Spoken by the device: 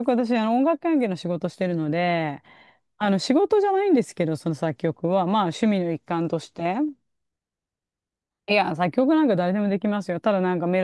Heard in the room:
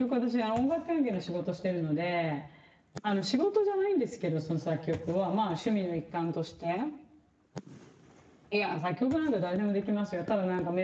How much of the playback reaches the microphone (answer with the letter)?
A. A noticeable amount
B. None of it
A